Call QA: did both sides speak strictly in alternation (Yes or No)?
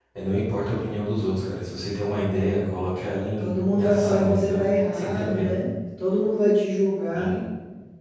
No